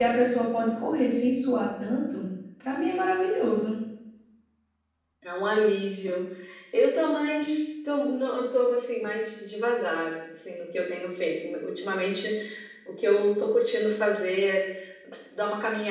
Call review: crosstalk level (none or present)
none